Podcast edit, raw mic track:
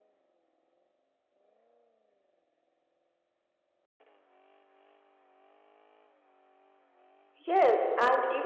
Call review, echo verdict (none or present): none